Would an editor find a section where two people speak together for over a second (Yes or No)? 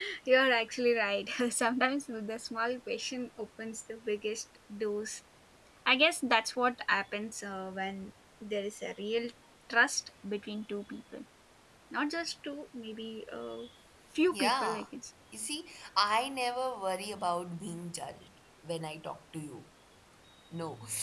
No